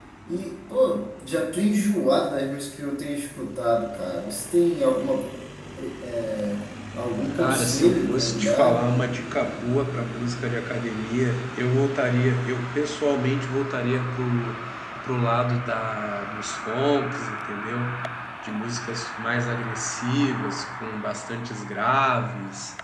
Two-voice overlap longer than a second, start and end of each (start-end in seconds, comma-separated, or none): 7.3-8.8